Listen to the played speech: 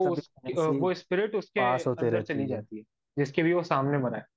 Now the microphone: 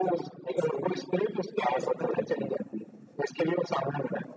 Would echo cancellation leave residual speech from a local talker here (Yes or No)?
No